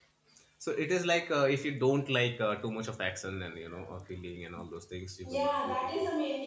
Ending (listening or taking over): taking over